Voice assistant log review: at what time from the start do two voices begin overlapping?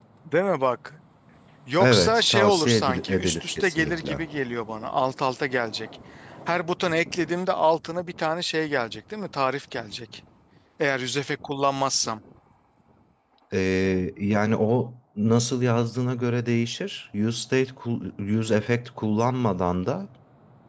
1.8 s

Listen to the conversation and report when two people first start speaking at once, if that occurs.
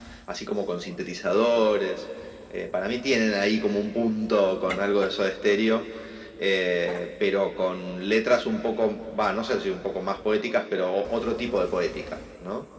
none

